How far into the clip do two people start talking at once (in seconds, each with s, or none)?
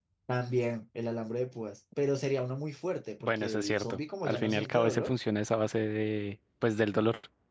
3.2 s